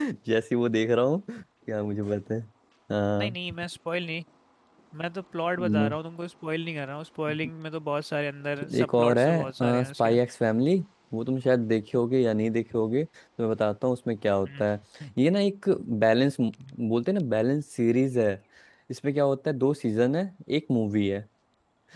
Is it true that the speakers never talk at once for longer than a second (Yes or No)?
No